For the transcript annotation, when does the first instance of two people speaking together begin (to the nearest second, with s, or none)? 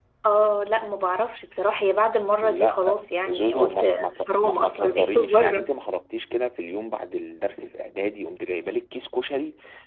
2 s